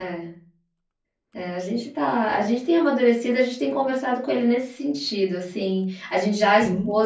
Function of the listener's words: listening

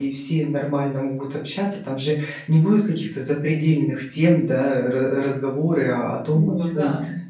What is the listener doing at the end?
listening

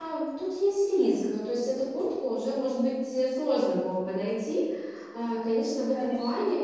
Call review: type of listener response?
listening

